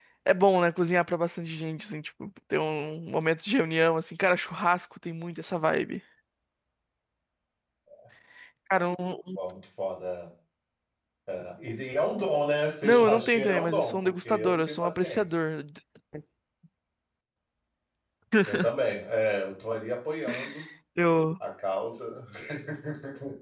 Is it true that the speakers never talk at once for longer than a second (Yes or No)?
No